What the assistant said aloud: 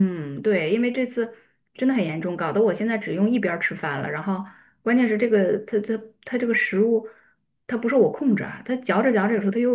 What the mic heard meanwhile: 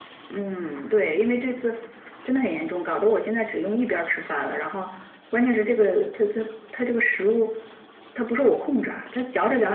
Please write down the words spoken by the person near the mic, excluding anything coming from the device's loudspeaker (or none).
none